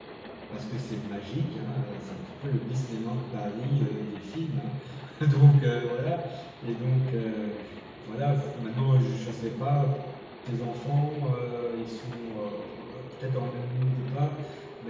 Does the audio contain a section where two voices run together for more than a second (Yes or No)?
No